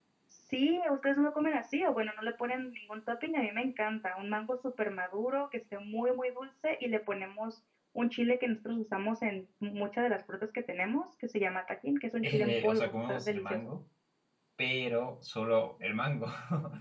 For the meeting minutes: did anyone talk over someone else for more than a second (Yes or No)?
Yes